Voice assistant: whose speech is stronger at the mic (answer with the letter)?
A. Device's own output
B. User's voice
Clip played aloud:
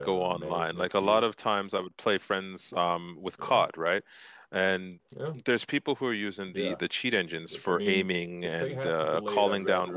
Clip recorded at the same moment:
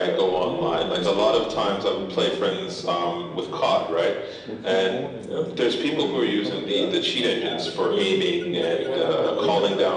A